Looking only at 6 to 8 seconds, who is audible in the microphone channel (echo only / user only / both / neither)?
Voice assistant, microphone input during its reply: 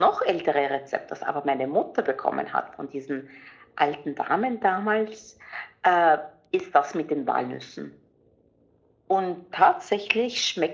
echo only